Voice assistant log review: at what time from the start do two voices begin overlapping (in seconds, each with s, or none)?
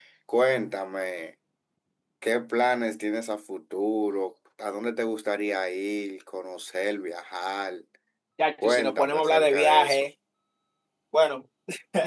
8.6 s